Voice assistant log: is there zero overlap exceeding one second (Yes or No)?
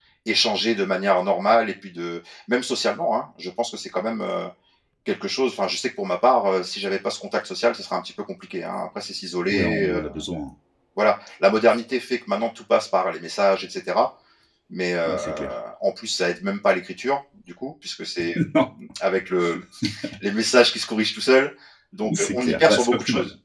No